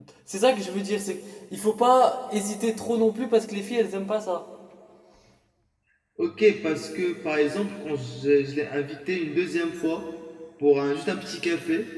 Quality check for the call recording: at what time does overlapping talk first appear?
none

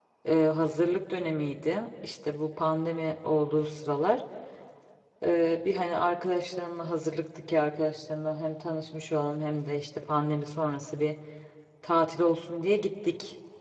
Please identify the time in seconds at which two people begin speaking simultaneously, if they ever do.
none

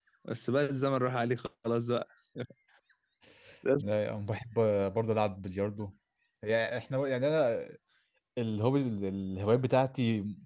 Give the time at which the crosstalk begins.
none

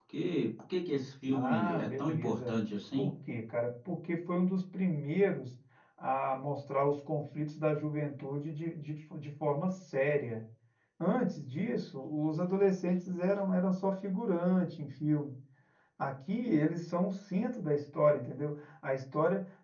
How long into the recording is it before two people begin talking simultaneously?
1.3 s

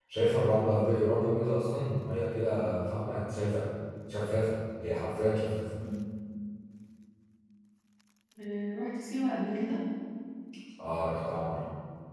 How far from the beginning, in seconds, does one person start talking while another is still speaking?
none

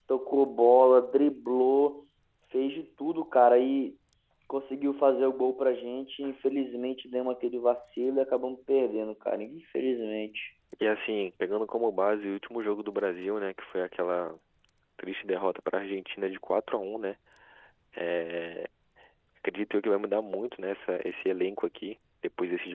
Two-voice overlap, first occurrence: none

